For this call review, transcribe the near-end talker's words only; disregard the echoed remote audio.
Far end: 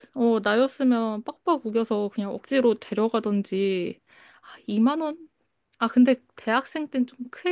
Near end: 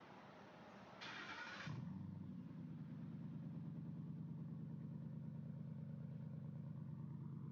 none

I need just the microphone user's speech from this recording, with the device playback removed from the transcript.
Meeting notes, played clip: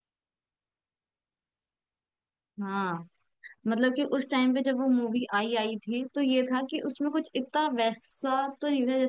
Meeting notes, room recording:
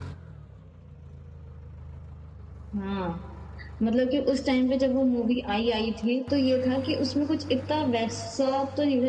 none

